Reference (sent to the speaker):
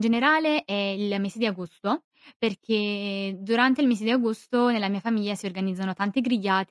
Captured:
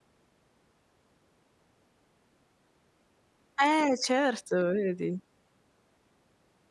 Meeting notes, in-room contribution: present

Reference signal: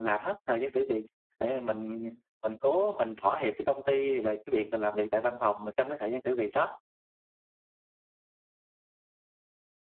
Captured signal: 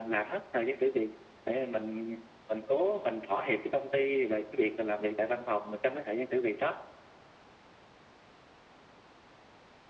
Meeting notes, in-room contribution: none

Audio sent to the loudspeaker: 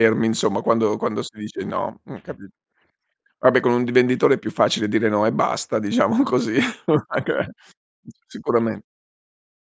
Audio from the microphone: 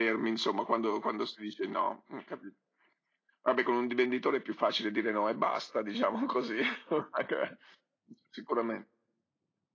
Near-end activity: none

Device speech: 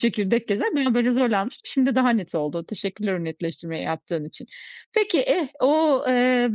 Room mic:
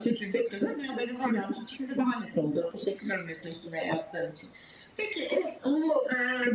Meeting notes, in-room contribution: none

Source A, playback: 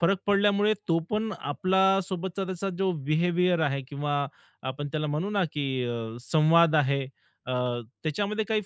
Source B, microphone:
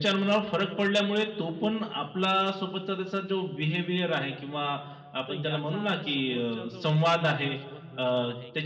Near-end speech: present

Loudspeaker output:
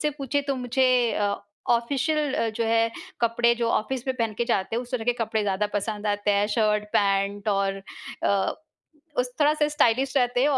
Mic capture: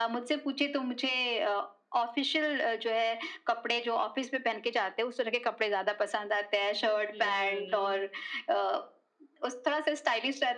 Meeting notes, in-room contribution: present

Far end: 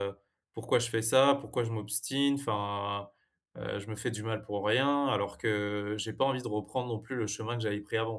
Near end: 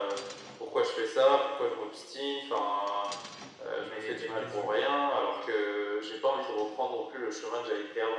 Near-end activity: present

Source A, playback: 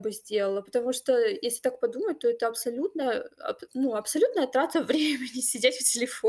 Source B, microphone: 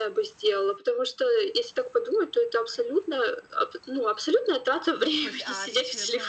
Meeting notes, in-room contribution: present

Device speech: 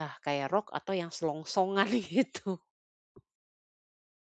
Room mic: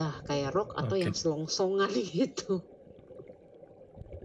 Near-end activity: present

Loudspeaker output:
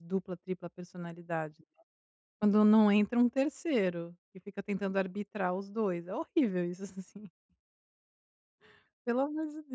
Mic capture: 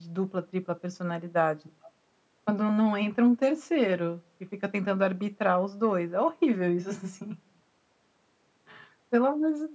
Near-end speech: none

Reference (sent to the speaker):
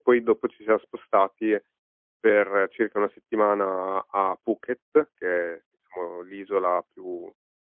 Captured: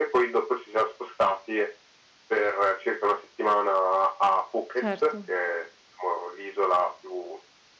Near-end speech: present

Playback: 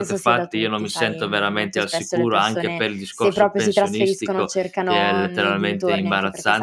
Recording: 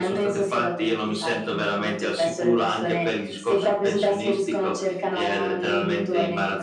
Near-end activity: none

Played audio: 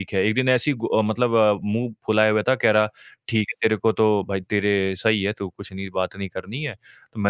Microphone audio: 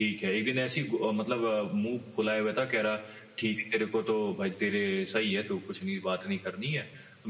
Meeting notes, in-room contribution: none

